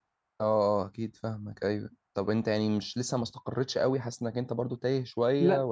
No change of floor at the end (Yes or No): No